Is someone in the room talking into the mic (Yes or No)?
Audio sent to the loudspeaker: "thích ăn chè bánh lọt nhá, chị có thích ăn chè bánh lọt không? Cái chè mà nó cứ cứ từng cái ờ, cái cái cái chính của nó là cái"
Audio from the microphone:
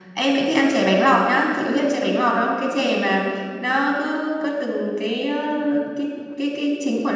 No